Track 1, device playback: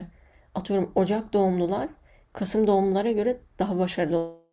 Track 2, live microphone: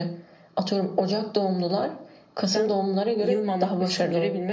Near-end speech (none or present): present